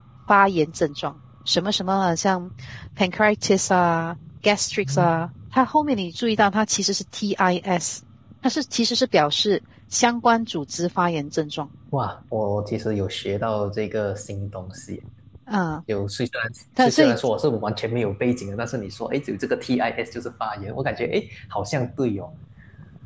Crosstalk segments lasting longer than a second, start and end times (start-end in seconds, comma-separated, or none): none